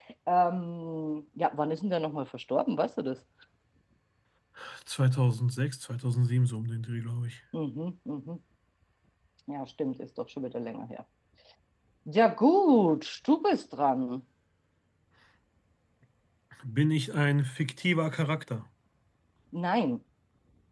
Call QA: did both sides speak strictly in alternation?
Yes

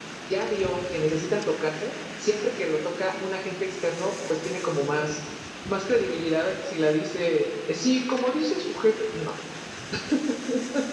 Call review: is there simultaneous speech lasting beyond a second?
No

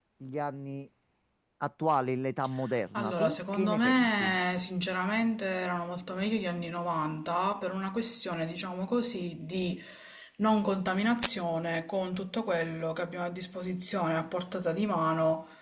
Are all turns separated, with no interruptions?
No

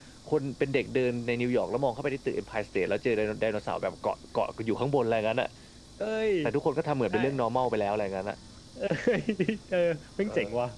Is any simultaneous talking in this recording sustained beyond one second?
No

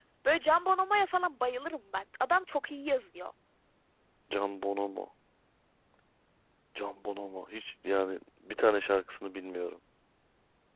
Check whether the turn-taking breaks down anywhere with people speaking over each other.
No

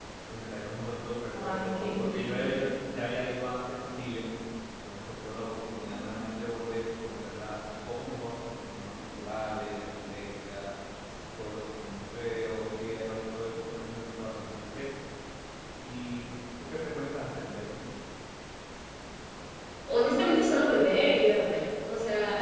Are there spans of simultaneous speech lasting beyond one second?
Yes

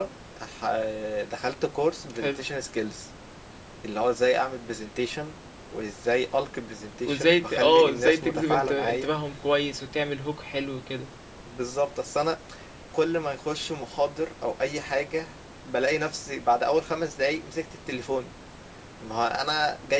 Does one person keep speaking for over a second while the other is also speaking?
Yes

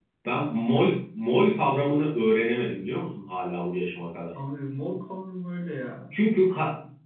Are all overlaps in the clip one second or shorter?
Yes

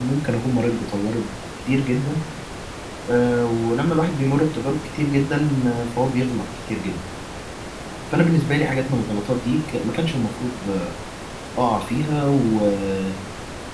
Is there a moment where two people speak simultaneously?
No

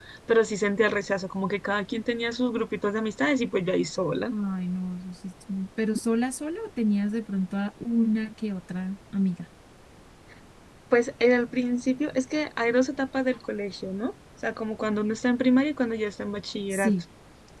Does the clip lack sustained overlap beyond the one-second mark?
Yes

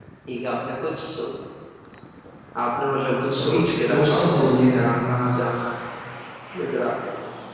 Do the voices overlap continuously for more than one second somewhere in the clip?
Yes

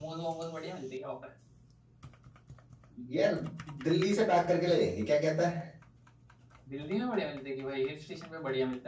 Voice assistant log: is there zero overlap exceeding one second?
Yes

